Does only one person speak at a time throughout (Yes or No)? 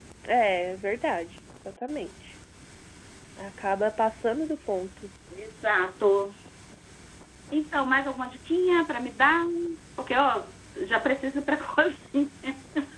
Yes